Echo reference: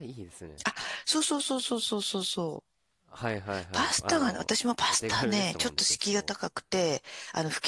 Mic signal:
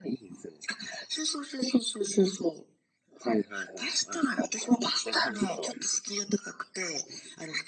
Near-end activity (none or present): none